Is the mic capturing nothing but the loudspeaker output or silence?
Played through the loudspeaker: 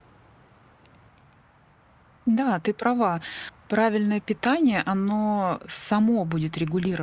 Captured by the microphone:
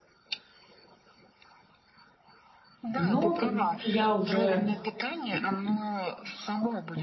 No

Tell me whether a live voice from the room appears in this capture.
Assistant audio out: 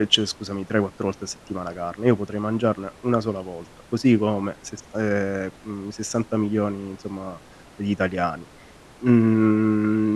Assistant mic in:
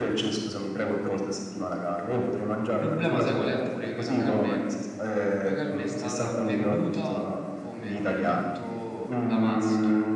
Yes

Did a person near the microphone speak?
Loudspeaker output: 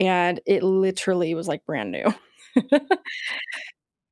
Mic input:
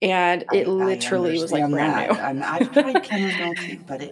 Yes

